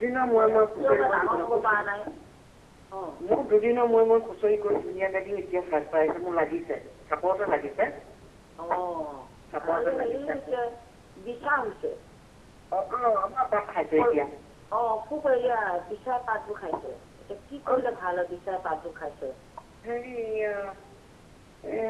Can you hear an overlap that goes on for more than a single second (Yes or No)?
Yes